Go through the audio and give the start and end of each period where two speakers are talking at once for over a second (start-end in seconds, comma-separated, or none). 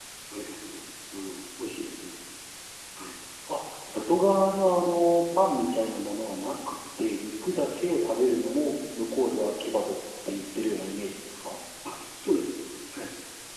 none